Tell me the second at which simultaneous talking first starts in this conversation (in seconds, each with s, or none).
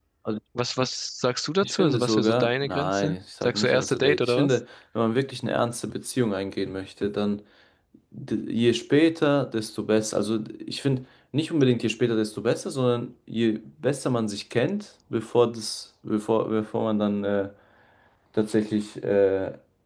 1.6 s